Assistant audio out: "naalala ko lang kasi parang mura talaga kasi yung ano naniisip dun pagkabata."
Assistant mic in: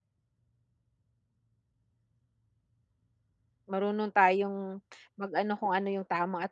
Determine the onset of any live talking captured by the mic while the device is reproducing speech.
3.7 s

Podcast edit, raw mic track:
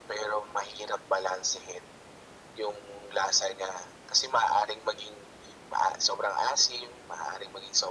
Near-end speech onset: none

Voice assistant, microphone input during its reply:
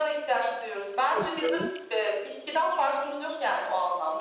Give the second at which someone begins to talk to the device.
1.1 s

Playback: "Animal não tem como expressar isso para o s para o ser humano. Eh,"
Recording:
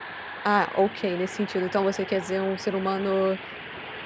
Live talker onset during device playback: 0.5 s

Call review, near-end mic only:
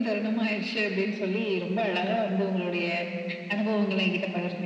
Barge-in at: none

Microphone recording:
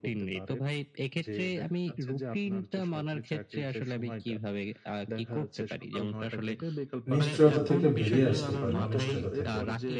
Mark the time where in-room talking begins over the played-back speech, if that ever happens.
7.1 s

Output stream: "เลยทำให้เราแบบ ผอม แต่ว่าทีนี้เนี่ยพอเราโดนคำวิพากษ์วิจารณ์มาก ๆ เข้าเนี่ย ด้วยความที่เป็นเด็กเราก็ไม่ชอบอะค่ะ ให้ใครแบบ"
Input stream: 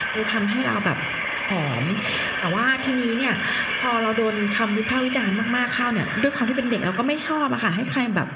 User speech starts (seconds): none

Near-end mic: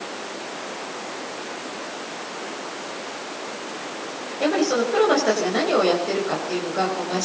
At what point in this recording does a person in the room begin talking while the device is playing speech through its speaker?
4.4 s

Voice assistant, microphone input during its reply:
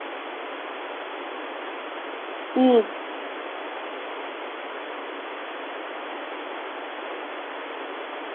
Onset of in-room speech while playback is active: 2.5 s

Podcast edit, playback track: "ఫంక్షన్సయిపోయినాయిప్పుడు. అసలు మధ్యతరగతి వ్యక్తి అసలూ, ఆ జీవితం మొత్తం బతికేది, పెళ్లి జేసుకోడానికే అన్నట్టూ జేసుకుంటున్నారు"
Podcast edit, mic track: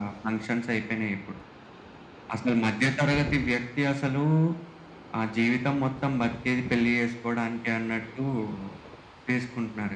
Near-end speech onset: none

